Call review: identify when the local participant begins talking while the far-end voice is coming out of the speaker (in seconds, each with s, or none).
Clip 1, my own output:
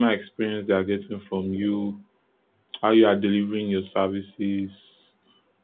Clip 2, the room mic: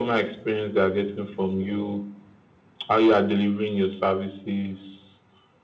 none